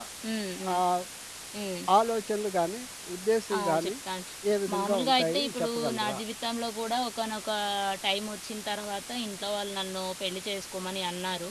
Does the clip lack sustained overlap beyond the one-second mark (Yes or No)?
No